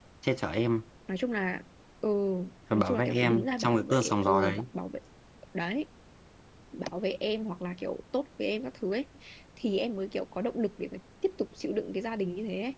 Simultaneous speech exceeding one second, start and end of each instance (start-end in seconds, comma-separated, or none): 2.7-4.6